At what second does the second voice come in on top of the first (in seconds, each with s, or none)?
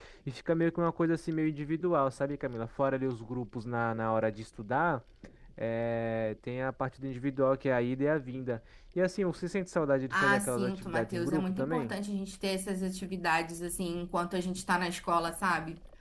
10.1 s